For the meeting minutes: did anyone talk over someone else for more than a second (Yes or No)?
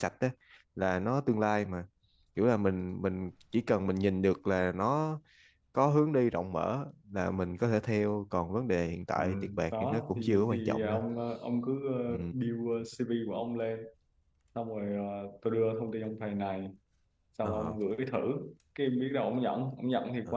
Yes